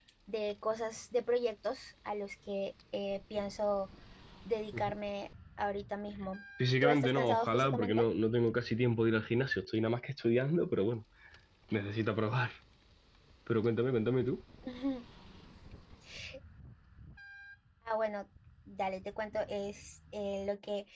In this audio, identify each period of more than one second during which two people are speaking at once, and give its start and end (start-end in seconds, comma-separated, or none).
6.8-8.0